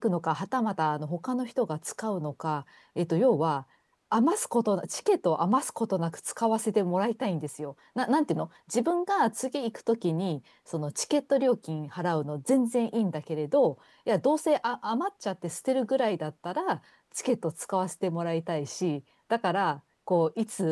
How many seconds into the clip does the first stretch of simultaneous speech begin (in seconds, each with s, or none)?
none